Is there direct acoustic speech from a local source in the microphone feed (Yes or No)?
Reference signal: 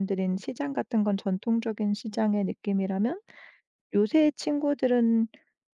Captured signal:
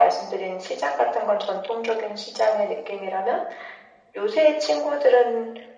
No